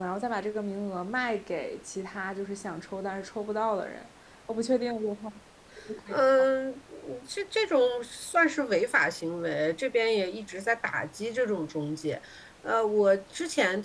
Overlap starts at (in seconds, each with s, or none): none